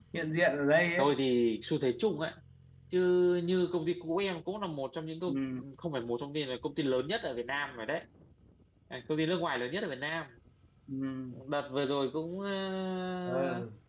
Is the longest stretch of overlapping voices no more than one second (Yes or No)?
Yes